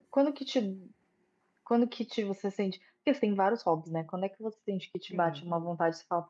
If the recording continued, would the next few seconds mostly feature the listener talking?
No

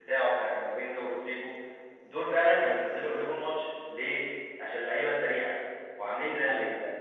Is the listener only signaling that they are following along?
Yes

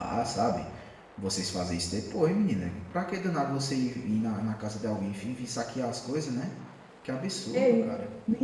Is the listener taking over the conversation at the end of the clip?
Yes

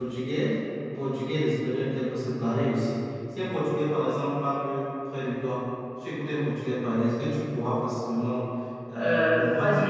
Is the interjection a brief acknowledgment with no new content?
No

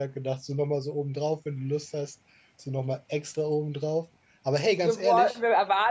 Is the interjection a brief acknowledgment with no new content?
No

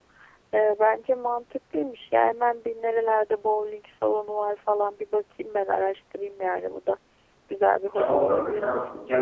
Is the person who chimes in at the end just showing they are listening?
No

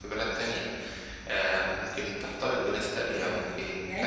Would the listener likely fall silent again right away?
No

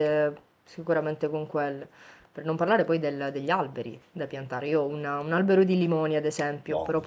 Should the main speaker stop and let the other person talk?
No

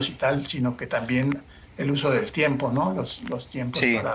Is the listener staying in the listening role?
Yes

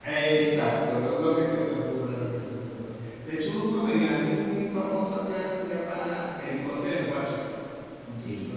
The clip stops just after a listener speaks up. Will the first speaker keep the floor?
No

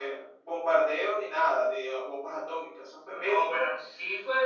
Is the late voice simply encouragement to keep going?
No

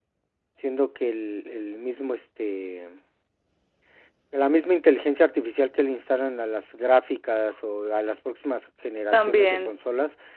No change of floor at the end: Yes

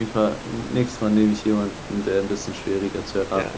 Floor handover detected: Yes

